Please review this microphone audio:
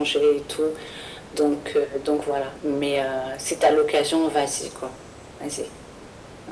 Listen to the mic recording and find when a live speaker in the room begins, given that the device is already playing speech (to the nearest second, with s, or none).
none